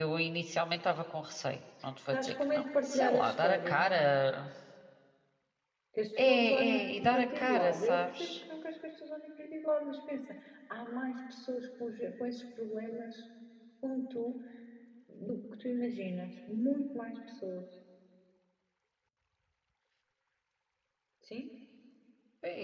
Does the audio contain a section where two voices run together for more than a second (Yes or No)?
Yes